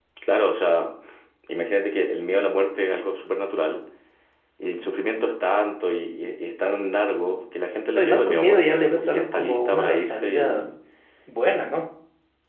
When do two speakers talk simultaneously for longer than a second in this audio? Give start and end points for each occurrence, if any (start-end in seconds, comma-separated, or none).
8.0-10.7